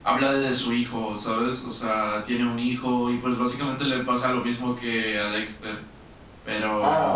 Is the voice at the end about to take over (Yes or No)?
Yes